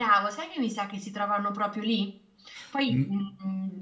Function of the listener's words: listening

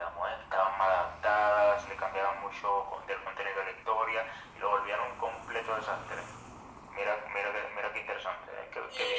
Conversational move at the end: taking over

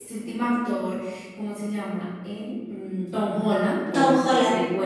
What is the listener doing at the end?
listening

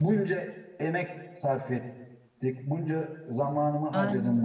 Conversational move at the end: listening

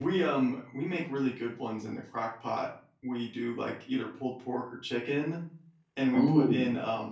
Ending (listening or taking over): listening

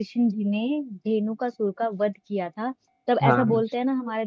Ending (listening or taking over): listening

